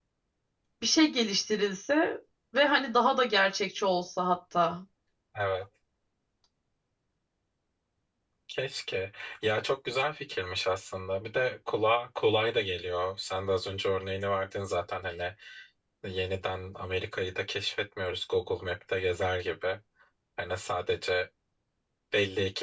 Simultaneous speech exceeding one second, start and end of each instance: none

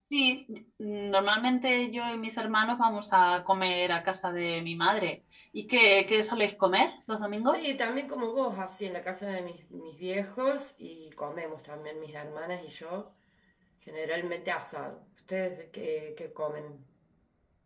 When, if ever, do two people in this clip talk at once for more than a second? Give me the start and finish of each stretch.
none

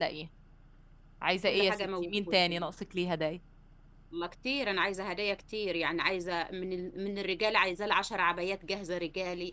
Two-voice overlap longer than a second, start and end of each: 1.5-2.7

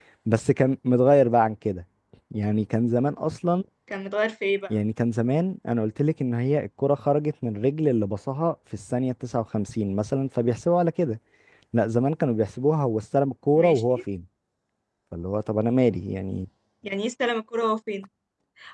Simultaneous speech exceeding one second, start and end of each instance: none

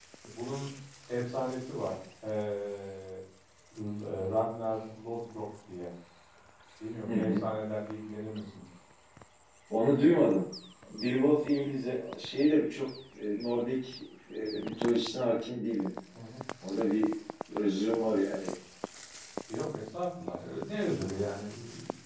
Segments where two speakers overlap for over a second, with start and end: none

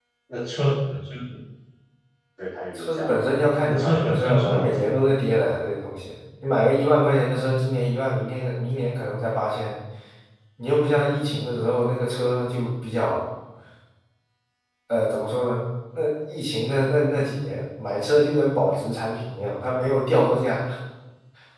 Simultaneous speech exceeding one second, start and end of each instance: 2.8-4.9

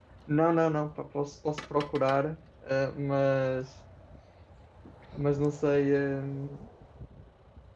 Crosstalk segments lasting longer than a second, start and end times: none

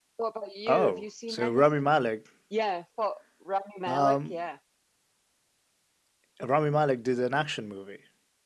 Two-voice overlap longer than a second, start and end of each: 0.7-1.9

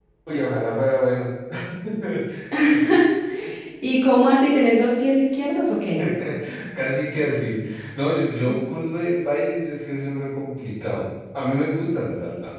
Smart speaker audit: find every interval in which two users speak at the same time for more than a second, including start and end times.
none

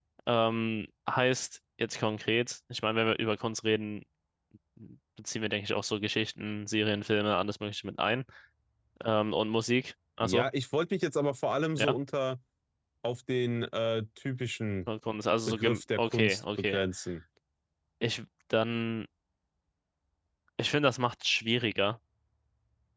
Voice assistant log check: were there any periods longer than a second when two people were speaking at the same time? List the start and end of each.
15.5-16.8

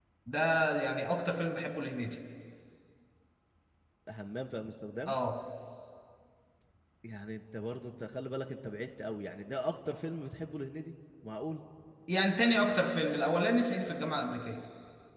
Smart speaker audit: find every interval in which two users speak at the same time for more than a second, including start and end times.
none

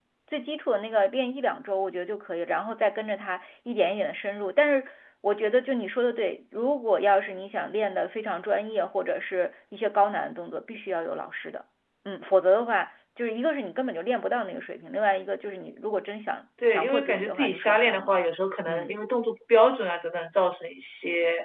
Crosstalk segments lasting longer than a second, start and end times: 16.7-18.1

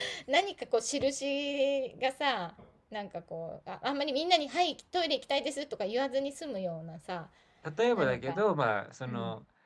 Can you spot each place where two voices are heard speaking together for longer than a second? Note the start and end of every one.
none

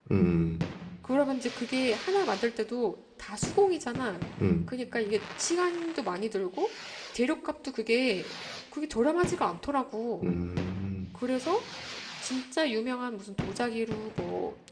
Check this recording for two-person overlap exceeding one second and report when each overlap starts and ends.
none

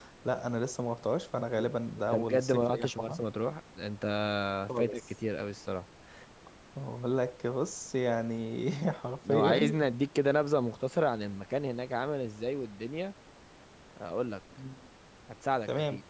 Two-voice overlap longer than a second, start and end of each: 2.0-3.2

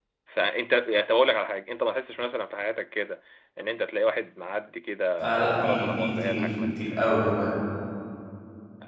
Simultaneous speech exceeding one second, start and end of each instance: 5.2-6.4

